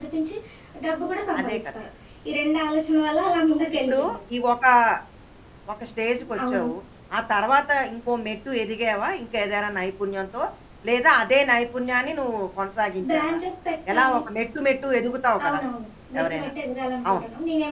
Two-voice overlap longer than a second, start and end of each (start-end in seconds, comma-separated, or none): none